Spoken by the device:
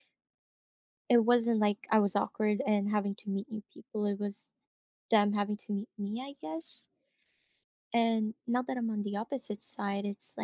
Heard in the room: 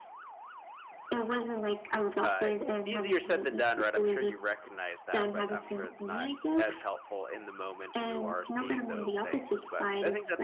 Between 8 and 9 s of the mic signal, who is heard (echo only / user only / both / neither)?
both